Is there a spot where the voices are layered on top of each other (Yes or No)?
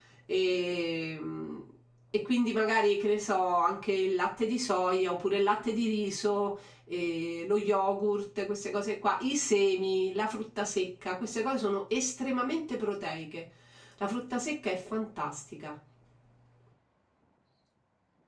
No